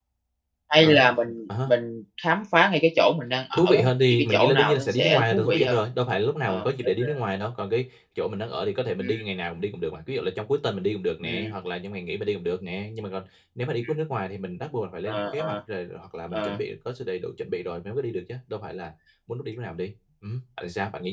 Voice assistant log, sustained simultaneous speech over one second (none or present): present